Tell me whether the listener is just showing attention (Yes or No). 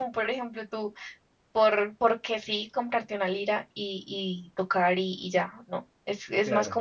Yes